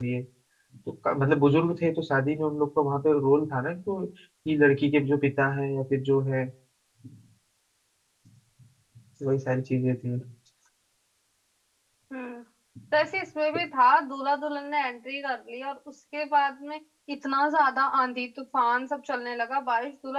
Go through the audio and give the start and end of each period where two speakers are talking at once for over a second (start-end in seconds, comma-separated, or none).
none